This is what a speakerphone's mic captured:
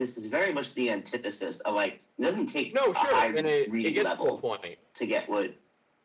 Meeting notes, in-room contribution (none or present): present